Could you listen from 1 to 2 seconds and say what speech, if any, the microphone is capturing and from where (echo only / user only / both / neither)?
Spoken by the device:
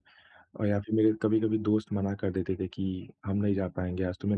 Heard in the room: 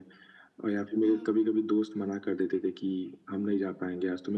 both